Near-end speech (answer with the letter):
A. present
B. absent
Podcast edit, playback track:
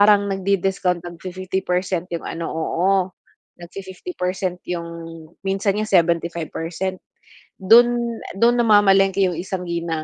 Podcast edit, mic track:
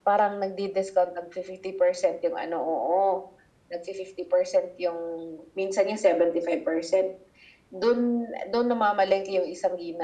B